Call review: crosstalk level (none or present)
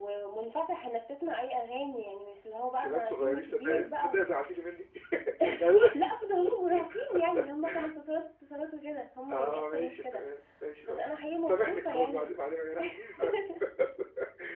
present